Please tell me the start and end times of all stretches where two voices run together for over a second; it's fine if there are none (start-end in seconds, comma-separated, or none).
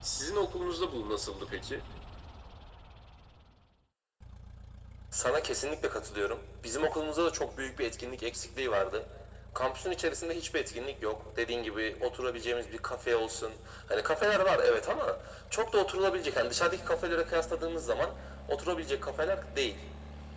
none